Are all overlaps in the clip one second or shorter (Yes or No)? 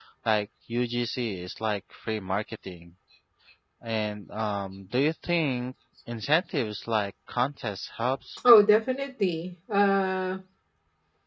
Yes